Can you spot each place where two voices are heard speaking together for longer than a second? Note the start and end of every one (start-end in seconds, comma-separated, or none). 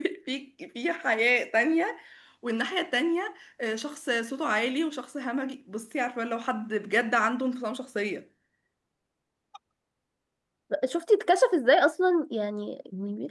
none